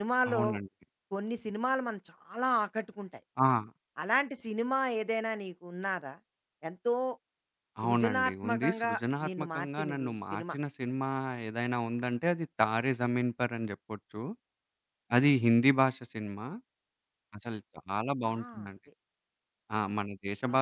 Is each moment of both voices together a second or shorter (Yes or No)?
No